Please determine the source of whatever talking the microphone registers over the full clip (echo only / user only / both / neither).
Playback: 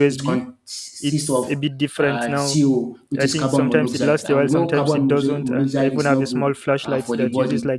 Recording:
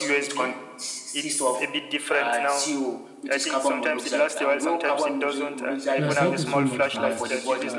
both